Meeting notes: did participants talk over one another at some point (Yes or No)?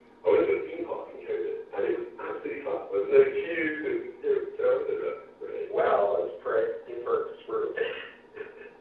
No